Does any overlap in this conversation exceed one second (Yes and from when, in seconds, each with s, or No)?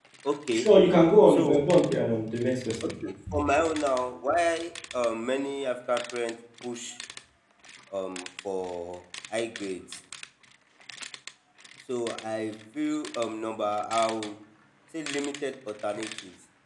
No